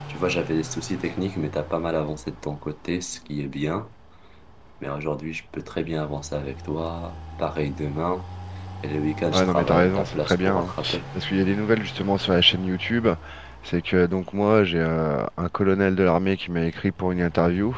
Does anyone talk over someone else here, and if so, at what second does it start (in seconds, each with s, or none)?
9.3 s